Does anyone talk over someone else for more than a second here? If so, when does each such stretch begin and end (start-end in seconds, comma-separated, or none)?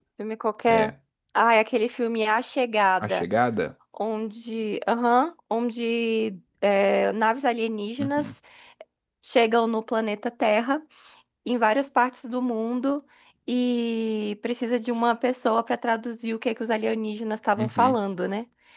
none